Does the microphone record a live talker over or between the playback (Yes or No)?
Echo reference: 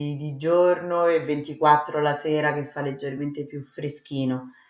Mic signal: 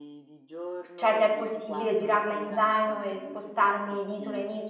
Yes